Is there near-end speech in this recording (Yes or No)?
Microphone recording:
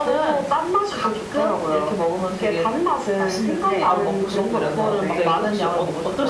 Yes